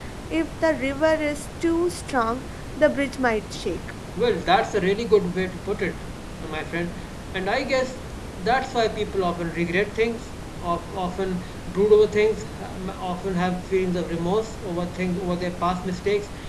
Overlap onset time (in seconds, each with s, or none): none